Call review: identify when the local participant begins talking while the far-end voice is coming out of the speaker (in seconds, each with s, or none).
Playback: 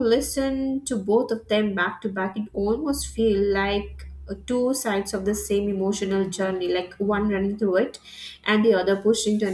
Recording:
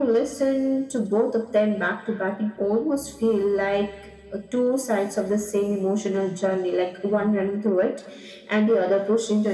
none